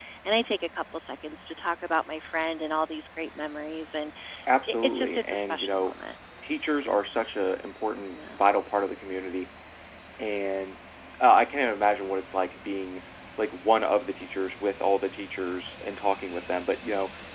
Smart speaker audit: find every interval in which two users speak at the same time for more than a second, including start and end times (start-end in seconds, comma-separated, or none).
4.7-5.9